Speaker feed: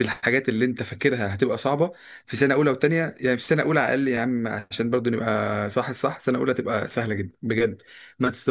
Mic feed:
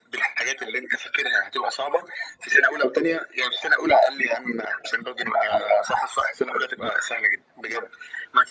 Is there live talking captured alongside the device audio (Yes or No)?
No